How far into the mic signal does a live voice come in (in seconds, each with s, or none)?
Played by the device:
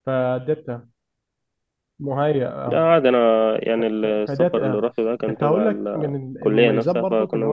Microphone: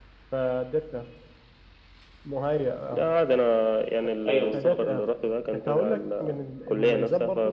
4.3 s